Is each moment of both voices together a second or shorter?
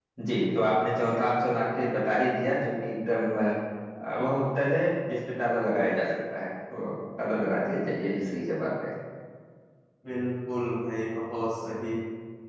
Yes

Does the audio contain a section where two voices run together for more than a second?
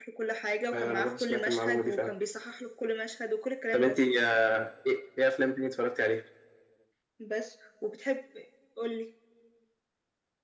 Yes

